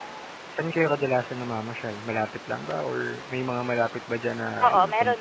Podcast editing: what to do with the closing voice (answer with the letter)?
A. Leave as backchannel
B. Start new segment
B